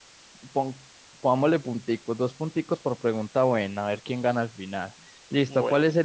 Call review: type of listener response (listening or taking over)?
listening